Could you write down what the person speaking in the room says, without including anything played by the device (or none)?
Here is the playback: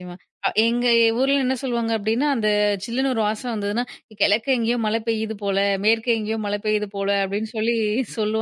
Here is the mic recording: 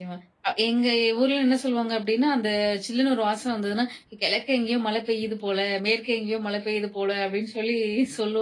none